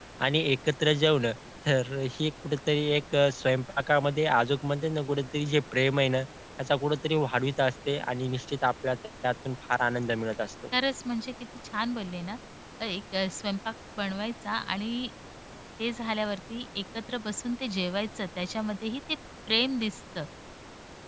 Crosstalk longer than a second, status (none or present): none